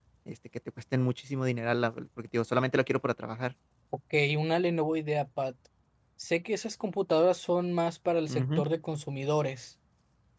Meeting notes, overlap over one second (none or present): none